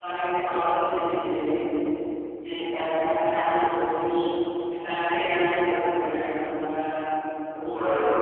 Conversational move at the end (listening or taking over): taking over